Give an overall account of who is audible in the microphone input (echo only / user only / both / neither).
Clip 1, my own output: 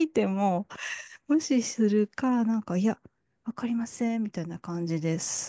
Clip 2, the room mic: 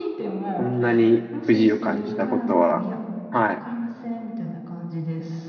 both